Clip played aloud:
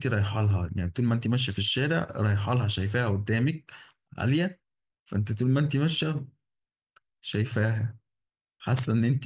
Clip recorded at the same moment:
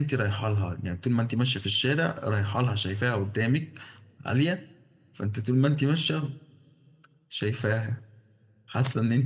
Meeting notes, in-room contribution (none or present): none